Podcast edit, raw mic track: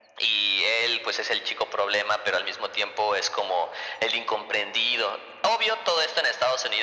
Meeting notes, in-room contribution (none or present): none